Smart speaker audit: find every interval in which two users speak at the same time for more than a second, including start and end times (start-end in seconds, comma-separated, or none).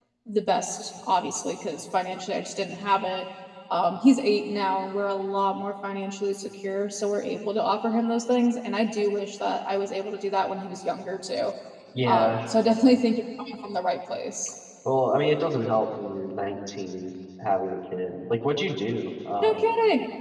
none